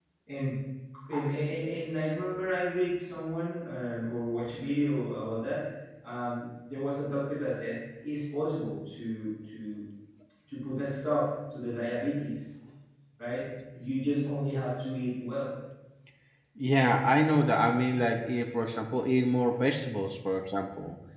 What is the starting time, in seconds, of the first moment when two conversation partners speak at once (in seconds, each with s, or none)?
none